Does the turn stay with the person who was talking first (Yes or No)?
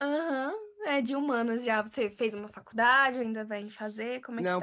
No